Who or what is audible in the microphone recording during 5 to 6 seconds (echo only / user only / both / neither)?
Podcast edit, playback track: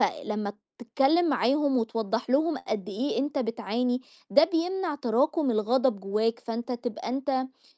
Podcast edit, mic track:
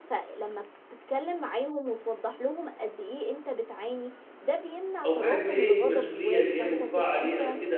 both